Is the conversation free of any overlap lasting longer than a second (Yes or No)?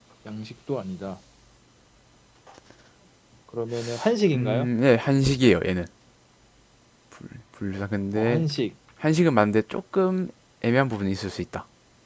Yes